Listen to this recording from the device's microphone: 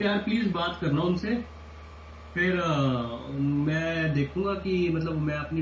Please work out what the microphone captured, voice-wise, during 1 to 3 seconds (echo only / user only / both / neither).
user only